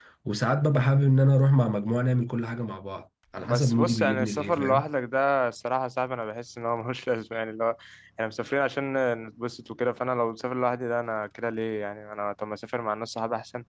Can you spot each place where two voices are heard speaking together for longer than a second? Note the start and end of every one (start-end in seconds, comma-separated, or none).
3.5-4.9